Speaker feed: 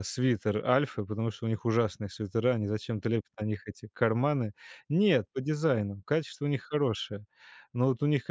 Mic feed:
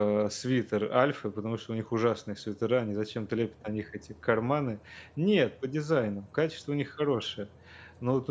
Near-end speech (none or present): none